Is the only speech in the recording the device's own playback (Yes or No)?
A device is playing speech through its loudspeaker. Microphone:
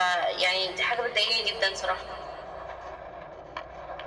Yes